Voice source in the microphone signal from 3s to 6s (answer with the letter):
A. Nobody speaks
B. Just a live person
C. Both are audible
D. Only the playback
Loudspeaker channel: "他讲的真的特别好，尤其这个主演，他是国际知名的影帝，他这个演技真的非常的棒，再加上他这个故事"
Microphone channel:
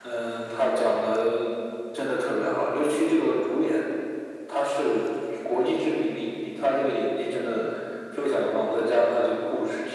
D